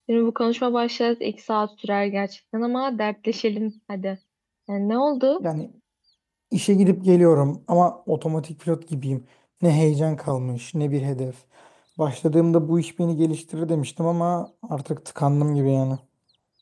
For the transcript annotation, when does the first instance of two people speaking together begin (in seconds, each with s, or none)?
none